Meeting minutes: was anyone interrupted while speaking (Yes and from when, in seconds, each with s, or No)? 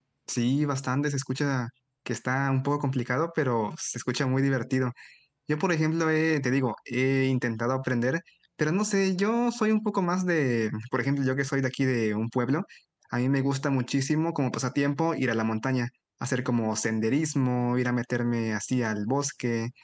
No